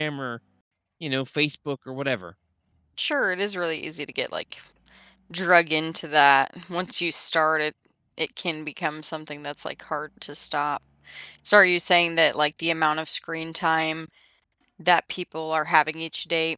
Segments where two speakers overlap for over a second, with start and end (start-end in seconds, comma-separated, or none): none